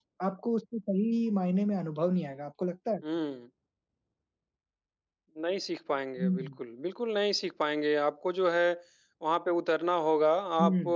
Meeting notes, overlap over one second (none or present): none